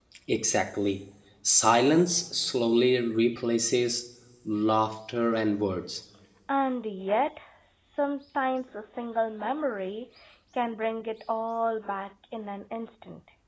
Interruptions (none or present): none